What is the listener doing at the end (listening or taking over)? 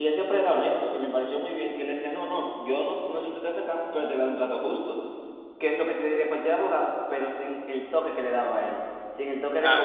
listening